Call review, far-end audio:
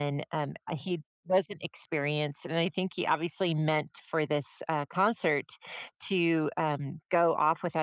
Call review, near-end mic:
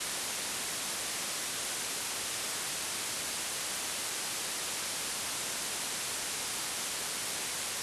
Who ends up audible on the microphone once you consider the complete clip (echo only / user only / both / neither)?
neither